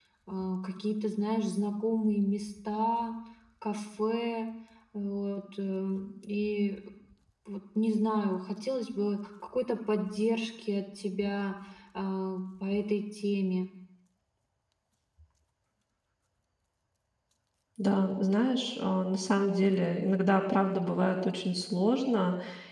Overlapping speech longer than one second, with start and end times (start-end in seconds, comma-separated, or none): none